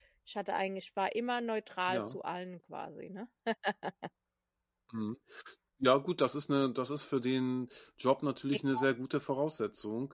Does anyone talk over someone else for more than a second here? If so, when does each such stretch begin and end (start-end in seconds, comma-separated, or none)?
none